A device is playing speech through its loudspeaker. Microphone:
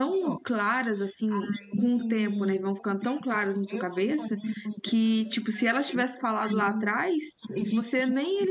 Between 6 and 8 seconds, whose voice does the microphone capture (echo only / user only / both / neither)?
both